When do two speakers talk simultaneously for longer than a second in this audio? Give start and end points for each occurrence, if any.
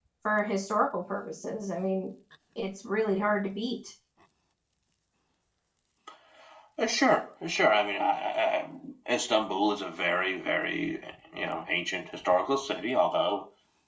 none

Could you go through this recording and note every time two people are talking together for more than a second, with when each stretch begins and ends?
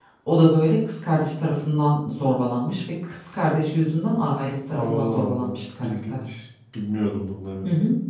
4.7-6.2

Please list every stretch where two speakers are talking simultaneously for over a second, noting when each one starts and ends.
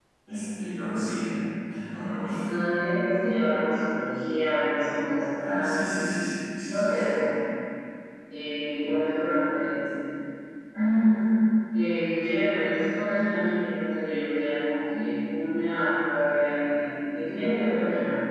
none

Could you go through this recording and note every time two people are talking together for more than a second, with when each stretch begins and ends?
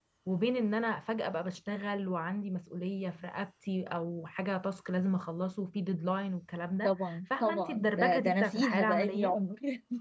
6.8-9.3

